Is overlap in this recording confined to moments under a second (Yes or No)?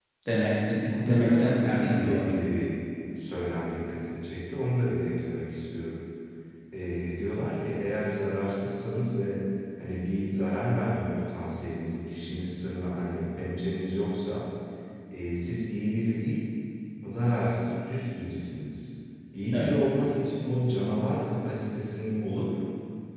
No